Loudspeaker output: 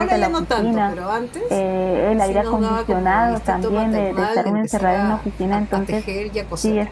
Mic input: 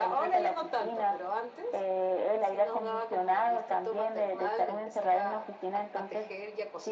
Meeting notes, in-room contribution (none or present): none